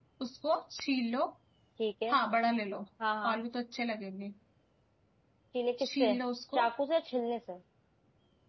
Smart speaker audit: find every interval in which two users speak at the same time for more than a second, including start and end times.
none

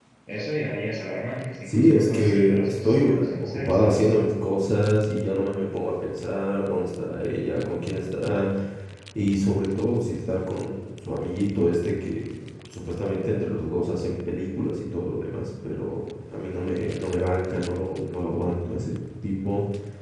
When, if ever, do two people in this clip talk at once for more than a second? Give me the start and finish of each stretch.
1.7-4.1

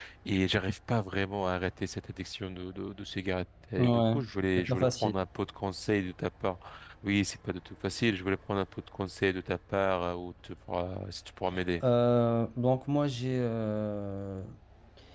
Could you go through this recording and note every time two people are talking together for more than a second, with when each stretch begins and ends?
none

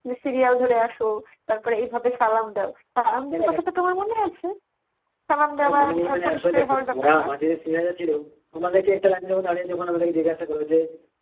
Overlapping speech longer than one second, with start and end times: 5.6-7.2

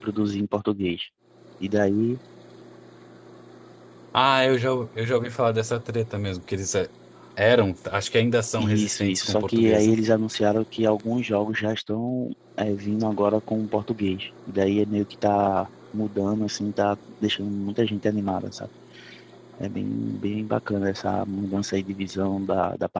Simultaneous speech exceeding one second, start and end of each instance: 8.6-9.9

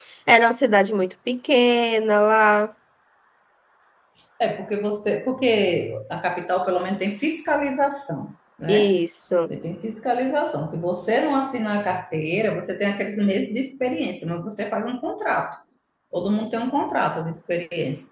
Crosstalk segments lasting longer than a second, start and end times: none

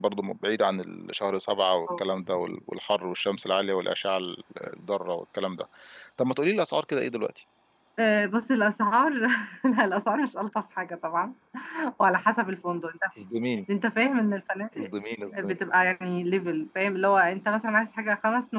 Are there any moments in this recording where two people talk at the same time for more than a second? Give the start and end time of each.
none

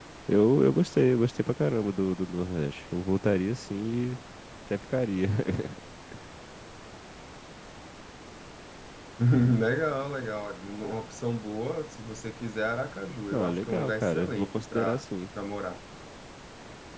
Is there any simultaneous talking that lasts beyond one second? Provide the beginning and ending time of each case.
13.3-15.0

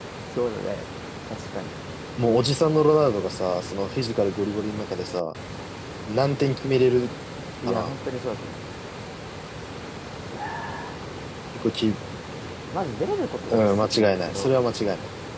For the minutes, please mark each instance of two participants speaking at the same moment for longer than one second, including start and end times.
13.5-14.7

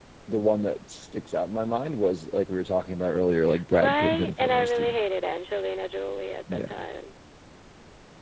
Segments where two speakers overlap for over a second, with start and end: 3.7-5.0

